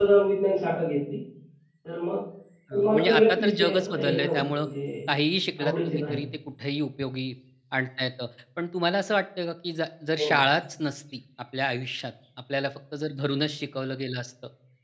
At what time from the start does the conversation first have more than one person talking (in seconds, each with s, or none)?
2.8 s